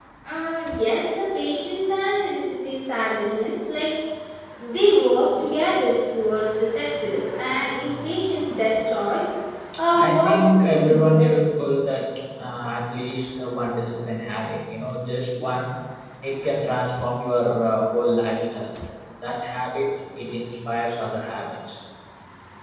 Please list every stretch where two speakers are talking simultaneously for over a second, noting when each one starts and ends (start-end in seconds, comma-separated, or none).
9.9-11.6